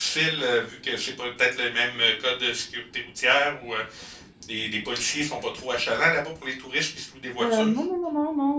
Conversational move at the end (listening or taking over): taking over